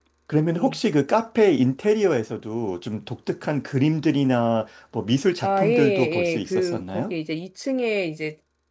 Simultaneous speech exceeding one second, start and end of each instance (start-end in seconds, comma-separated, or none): 5.4-7.1